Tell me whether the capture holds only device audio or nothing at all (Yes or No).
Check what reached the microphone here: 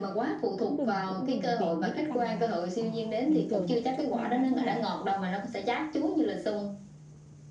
No